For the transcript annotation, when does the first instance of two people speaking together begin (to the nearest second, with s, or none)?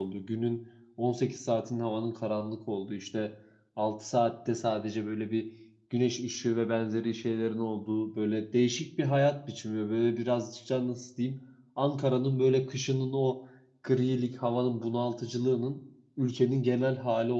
none